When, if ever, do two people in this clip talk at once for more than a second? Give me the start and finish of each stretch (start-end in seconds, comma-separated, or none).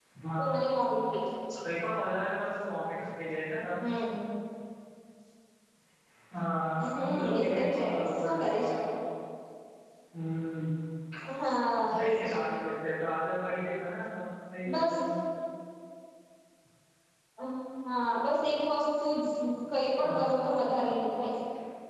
6.8-8.8